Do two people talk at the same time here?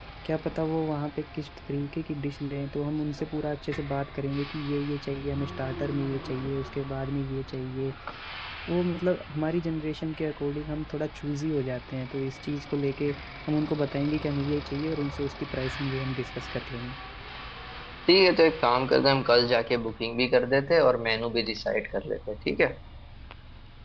No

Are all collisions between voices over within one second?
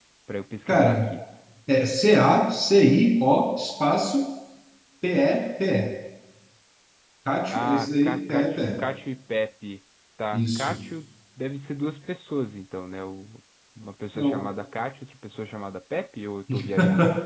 No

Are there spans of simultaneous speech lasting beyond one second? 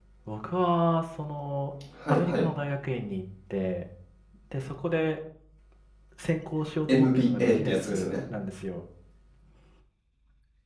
Yes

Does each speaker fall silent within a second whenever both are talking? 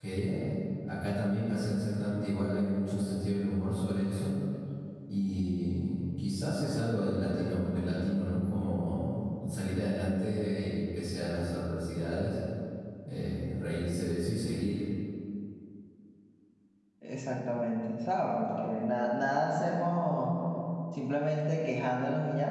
Yes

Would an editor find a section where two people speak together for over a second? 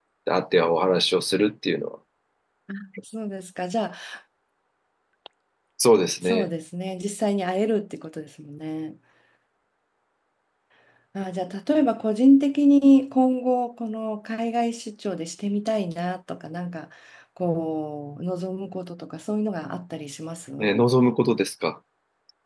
No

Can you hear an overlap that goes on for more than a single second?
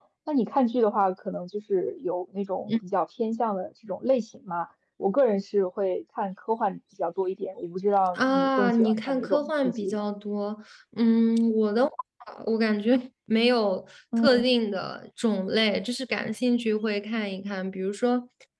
Yes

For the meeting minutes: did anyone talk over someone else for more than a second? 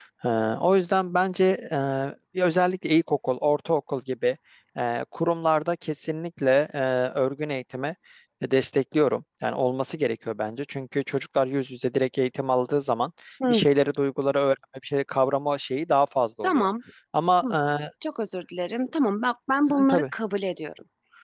No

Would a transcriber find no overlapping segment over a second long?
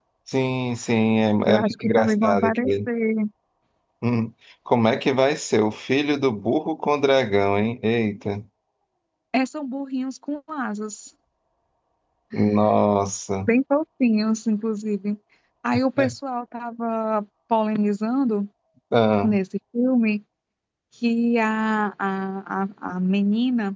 No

